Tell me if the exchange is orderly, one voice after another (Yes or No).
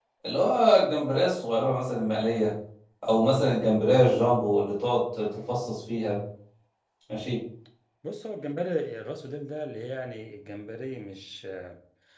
Yes